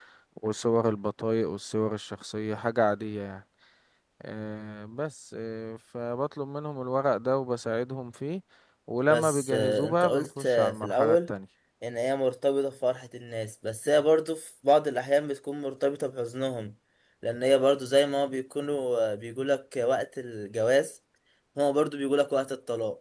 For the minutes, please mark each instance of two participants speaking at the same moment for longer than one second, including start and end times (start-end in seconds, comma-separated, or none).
9.1-11.3